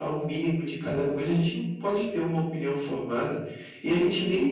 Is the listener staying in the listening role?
Yes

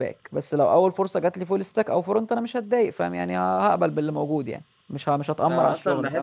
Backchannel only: No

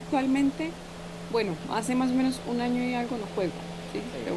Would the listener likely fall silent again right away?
No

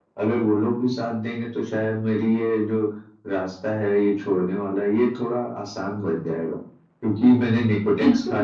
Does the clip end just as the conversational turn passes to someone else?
No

